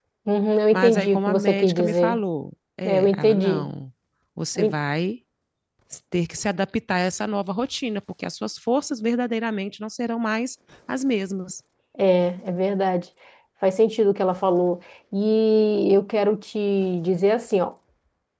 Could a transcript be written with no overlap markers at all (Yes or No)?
No